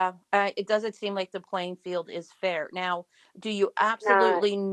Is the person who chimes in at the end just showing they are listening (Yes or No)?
Yes